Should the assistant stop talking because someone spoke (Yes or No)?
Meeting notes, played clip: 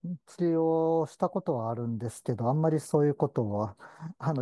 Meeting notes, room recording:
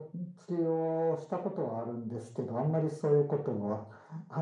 No